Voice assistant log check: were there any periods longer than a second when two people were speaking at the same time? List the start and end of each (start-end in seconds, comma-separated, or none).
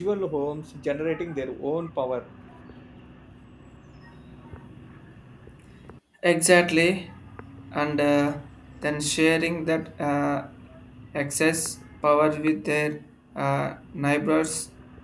none